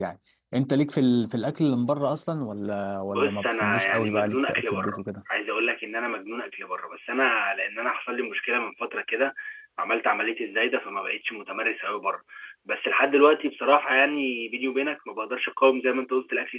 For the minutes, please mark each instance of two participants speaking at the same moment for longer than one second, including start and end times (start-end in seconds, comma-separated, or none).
3.1-5.0